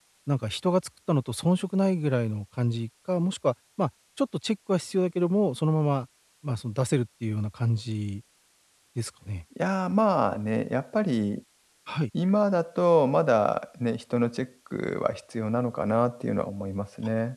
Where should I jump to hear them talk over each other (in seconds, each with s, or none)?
none